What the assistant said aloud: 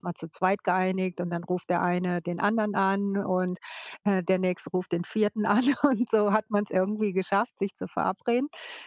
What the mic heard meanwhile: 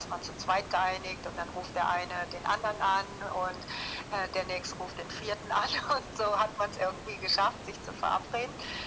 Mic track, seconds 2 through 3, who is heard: echo only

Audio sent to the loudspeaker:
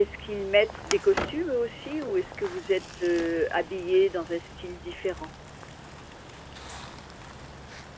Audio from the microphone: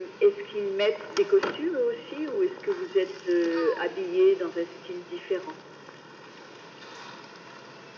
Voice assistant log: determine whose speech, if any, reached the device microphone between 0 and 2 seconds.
echo only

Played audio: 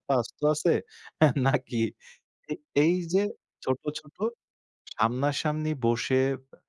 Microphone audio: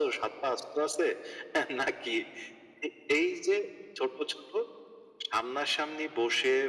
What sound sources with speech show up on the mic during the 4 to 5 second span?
echo only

